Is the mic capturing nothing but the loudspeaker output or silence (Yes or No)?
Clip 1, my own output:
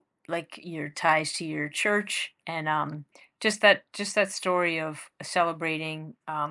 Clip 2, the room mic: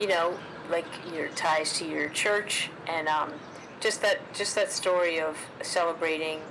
Yes